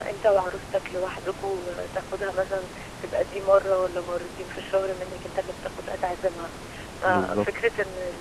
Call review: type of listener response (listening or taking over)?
listening